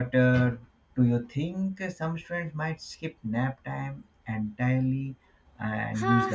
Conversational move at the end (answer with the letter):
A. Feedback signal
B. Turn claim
B